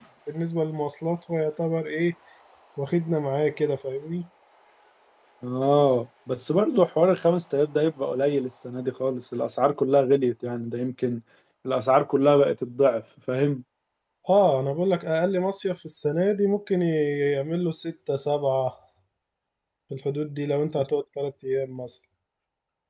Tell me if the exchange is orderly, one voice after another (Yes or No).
Yes